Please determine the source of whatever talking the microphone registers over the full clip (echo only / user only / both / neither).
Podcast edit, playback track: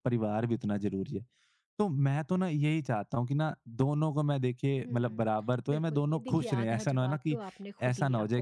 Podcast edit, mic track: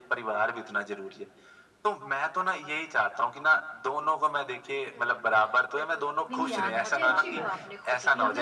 both